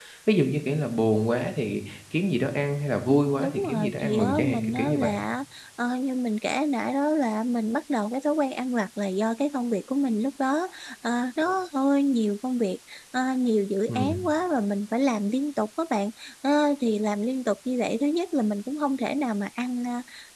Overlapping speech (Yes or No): Yes